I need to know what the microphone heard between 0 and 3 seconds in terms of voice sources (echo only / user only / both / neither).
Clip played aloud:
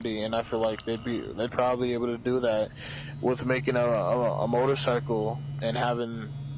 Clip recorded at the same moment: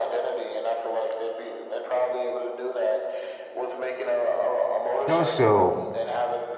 echo only